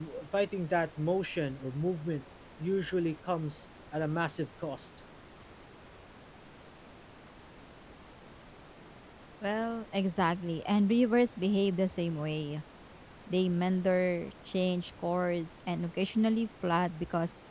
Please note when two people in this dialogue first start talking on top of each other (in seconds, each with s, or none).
none